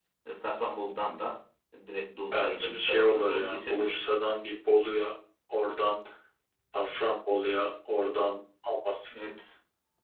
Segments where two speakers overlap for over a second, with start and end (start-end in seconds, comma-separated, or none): 2.3-4.1